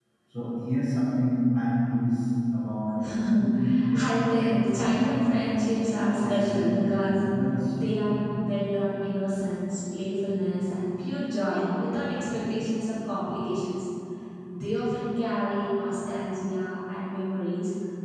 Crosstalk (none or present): present